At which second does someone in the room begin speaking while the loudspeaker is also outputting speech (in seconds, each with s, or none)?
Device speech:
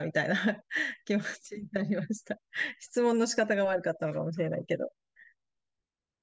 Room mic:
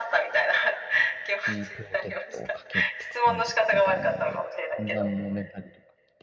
1.4 s